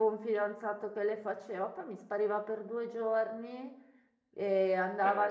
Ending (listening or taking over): listening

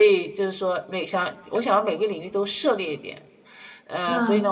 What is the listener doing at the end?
listening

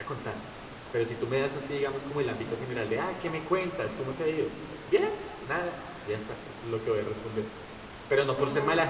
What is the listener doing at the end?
listening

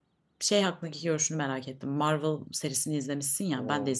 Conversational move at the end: listening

